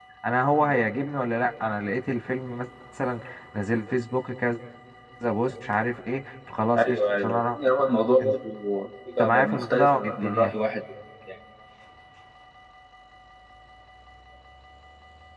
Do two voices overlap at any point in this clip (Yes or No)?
Yes